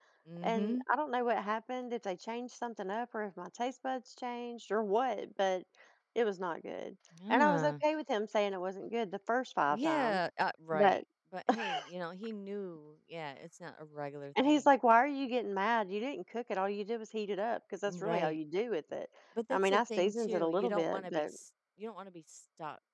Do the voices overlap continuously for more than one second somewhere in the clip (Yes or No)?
Yes